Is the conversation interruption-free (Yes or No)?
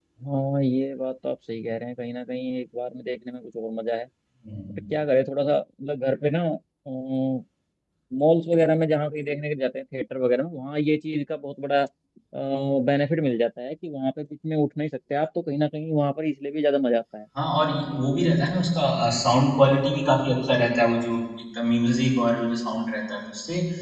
Yes